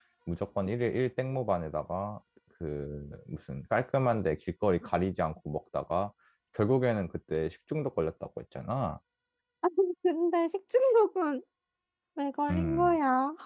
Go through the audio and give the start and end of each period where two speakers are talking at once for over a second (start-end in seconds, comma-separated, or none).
none